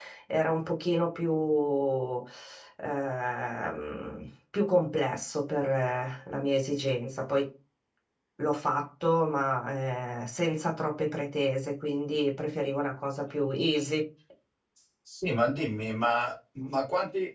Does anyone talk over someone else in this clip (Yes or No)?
No